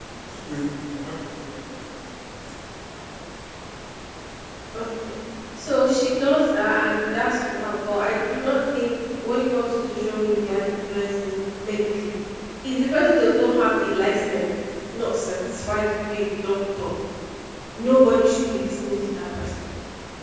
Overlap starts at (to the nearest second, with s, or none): none